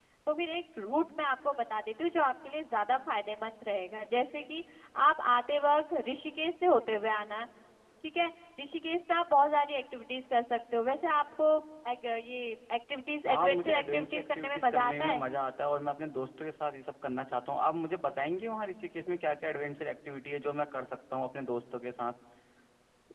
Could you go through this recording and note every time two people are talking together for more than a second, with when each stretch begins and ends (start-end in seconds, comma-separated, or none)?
13.3-15.2